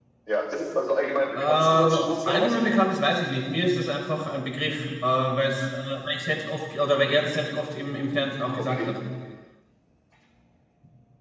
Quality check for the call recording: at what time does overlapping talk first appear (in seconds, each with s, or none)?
1.4 s